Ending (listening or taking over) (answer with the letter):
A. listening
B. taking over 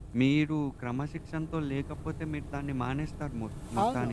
B